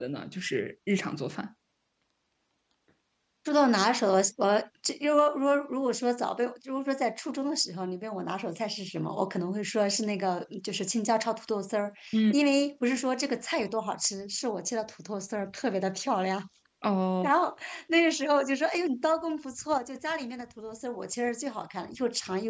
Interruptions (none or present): none